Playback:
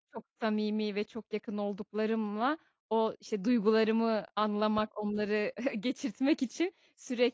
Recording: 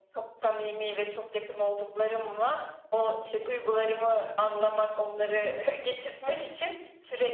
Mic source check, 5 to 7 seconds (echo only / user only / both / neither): echo only